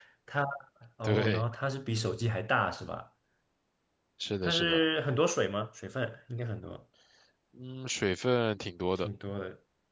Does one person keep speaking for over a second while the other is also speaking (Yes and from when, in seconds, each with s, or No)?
No